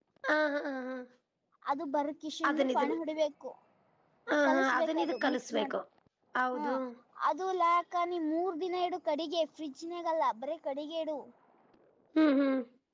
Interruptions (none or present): present